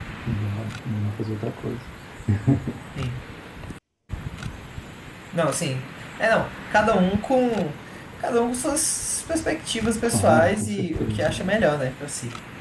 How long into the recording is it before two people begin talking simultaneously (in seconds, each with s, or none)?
10.0 s